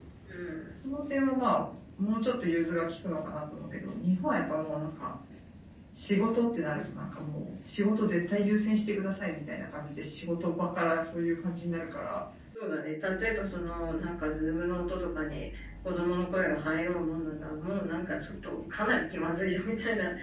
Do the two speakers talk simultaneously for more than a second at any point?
No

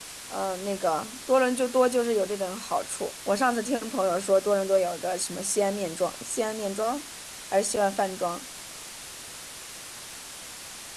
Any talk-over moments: No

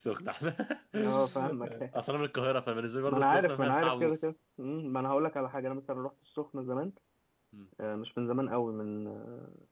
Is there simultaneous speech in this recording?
Yes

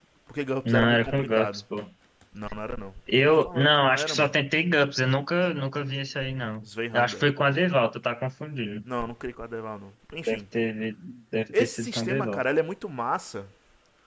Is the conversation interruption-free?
No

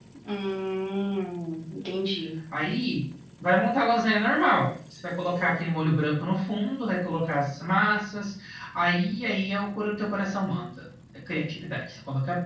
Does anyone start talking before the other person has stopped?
No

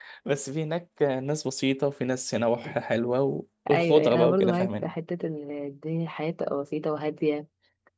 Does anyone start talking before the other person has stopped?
Yes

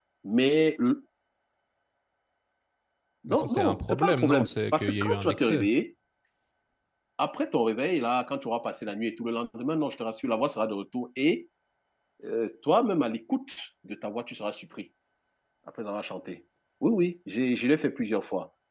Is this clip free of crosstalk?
No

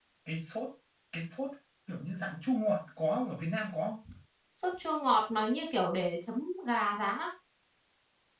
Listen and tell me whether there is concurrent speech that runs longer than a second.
No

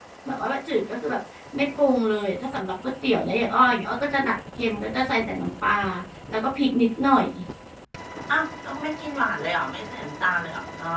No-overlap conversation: Yes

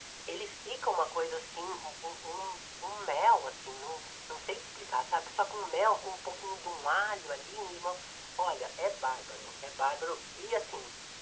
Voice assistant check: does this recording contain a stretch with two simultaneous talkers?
No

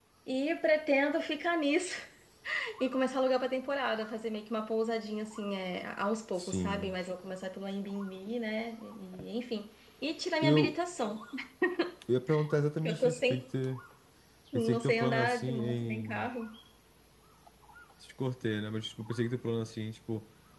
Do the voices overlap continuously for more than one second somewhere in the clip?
Yes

